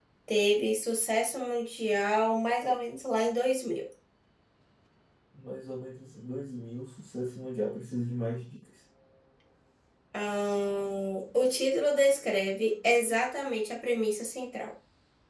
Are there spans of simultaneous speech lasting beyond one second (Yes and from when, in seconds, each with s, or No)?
No